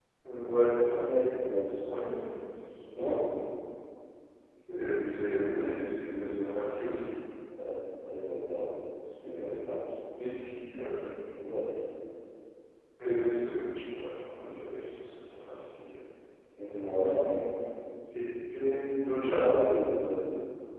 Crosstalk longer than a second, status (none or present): none